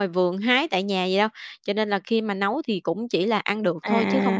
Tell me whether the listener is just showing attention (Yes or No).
No